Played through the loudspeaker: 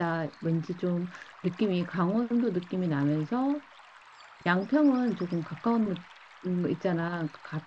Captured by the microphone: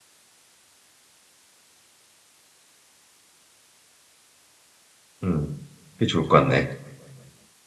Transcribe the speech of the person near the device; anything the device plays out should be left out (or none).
음 그게 좋을 것 같네